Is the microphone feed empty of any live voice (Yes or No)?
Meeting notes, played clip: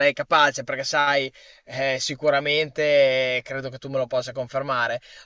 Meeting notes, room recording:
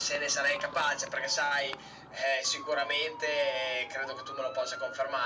Yes